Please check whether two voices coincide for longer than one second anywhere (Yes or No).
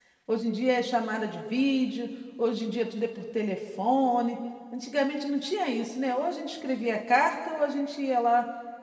No